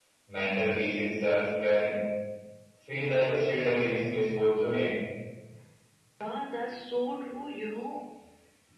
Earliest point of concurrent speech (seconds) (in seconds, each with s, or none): none